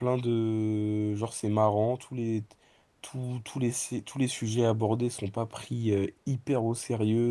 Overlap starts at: none

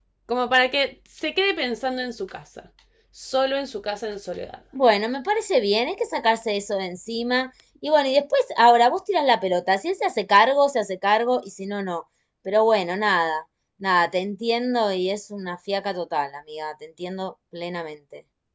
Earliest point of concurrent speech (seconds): none

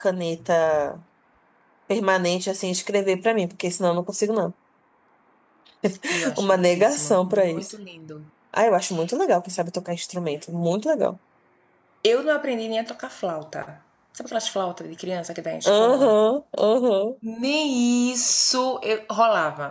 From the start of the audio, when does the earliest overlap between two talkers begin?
6.4 s

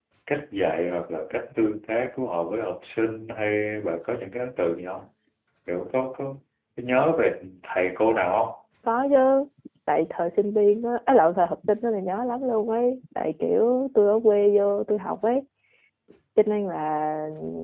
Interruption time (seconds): none

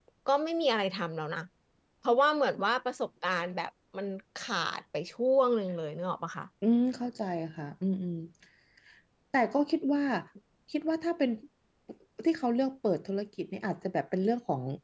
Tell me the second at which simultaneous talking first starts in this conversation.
none

